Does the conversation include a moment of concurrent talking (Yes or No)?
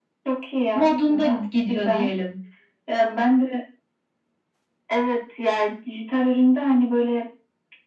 Yes